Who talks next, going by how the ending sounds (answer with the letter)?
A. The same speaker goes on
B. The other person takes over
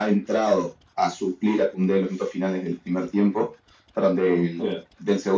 A